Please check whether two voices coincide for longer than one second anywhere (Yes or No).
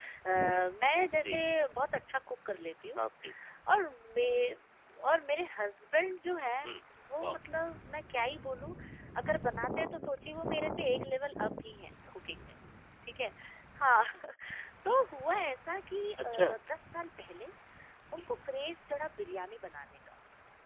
No